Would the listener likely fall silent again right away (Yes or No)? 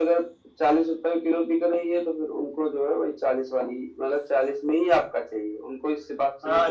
No